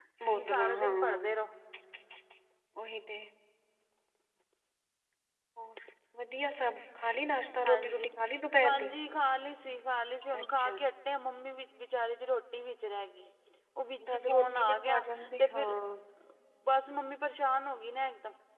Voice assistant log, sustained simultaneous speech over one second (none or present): present